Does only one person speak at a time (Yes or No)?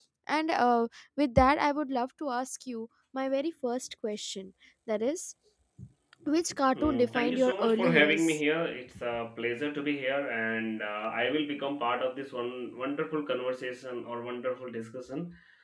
No